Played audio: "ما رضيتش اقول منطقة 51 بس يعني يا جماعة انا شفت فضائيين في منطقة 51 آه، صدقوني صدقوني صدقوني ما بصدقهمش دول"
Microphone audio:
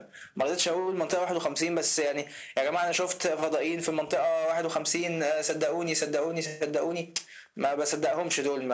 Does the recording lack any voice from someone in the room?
Yes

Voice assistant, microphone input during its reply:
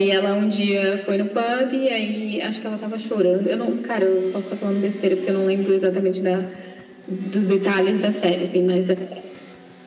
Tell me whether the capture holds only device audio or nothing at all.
Yes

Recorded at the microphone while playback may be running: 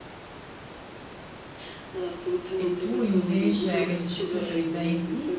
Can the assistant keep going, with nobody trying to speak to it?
No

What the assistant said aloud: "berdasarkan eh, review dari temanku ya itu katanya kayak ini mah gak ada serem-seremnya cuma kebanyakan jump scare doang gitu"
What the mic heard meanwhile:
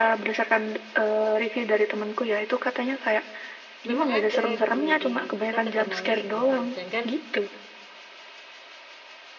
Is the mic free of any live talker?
No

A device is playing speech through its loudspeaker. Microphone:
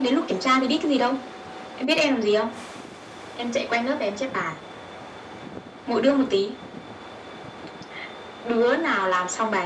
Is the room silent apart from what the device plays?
Yes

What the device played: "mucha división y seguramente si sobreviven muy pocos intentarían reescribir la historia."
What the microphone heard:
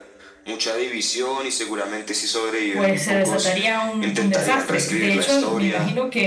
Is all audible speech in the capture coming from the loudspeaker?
No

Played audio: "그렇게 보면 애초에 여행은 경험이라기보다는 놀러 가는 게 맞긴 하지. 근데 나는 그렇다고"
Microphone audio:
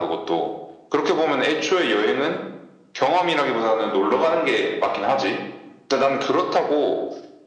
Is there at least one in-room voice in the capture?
No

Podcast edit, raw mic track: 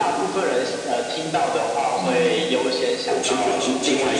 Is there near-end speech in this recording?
No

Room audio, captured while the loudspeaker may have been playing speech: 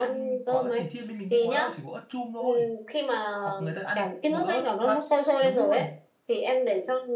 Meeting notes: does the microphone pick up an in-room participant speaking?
Yes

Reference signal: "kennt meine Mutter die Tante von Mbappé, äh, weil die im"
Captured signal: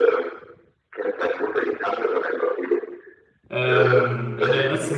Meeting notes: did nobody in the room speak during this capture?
No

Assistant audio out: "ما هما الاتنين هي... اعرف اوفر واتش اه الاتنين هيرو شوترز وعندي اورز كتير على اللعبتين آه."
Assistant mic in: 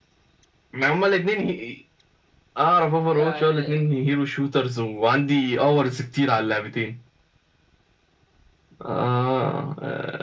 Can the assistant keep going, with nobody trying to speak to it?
No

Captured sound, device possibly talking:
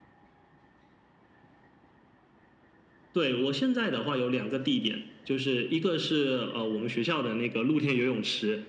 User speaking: No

